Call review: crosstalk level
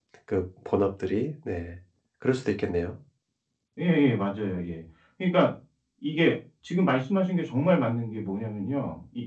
none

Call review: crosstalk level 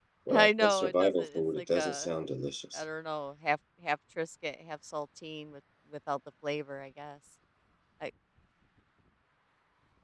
present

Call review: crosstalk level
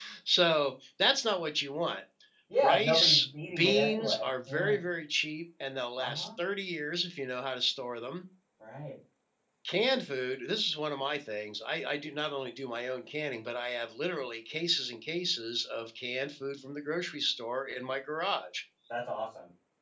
present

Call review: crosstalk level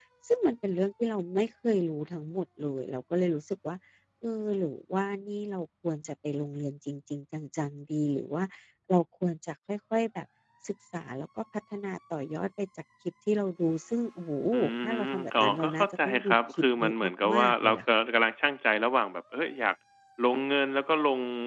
present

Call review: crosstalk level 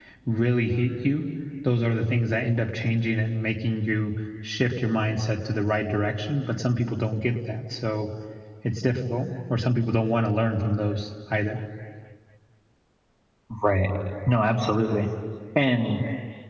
none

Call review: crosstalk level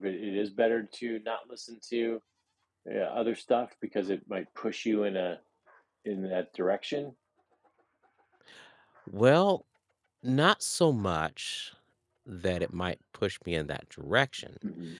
none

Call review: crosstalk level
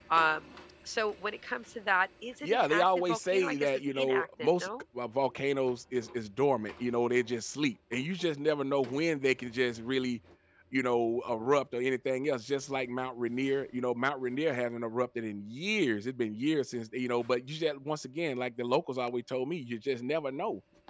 present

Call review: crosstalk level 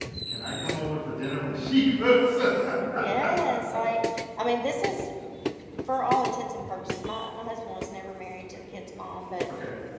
none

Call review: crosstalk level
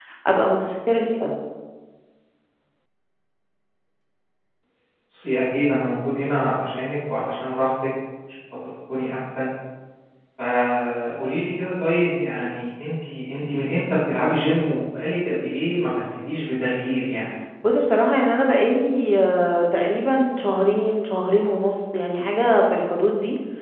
none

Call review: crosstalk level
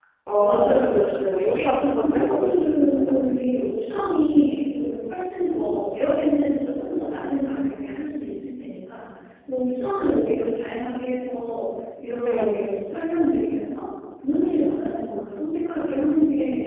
present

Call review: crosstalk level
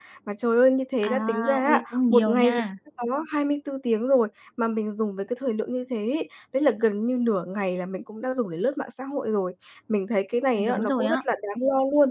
present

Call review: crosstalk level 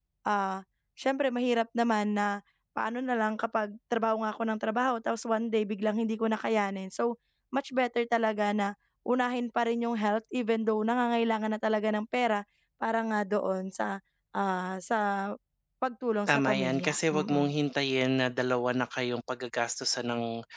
present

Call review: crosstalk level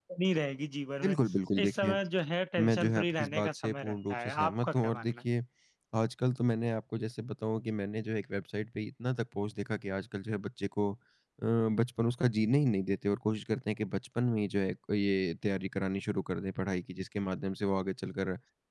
present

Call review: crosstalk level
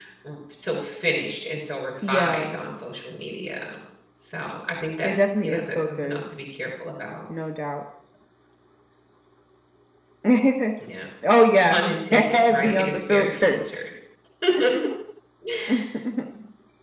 present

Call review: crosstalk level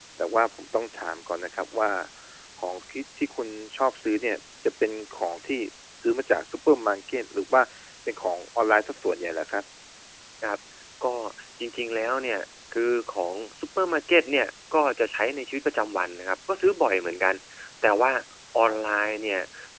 none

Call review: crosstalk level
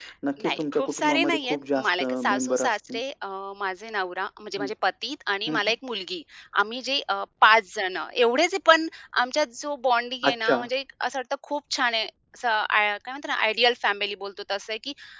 present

